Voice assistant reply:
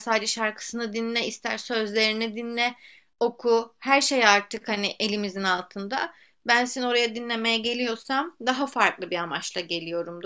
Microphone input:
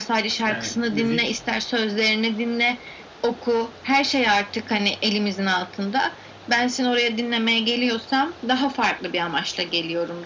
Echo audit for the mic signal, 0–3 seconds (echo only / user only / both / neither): both